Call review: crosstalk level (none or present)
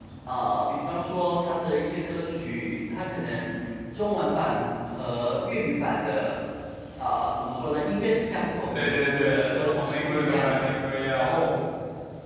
present